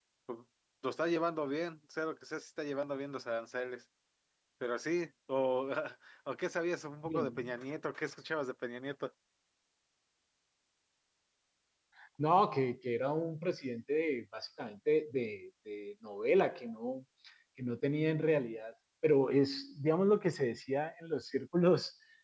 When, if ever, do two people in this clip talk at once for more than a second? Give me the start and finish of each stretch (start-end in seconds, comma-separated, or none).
none